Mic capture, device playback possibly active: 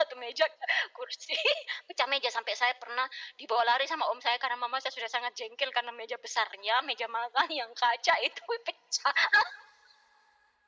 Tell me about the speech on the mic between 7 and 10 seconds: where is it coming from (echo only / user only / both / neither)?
echo only